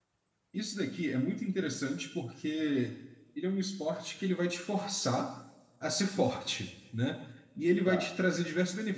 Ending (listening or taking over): listening